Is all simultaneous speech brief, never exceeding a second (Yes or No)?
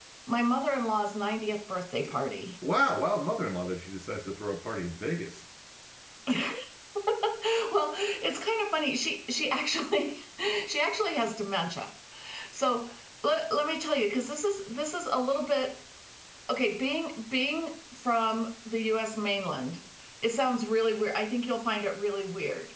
Yes